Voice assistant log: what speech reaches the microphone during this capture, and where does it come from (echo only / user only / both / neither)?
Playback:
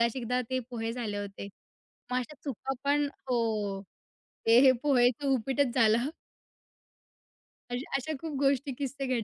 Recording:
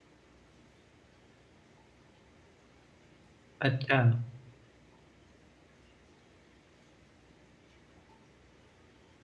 user only